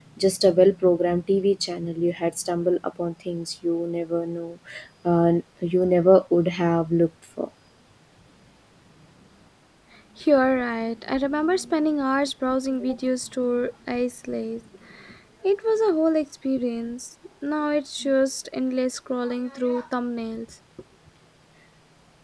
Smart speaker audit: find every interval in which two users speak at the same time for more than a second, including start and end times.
none

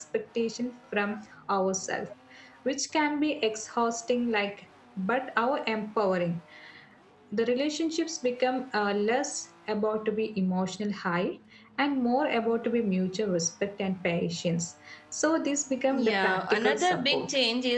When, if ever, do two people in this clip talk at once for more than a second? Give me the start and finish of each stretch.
15.9-17.3

